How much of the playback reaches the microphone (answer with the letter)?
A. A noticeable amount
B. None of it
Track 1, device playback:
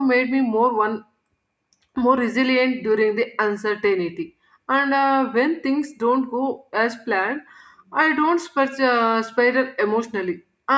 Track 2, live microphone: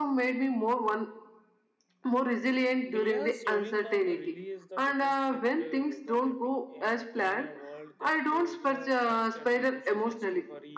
A